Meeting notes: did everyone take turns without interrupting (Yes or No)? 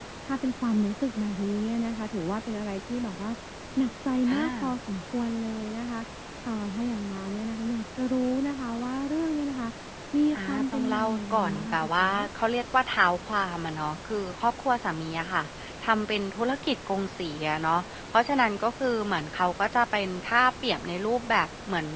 No